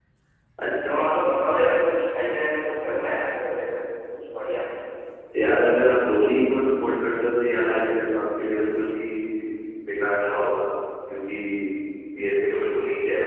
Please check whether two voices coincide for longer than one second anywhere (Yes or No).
No